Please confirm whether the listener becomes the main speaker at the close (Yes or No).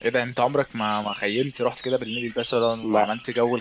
No